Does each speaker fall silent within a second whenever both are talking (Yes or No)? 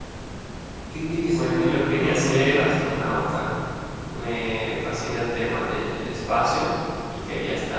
No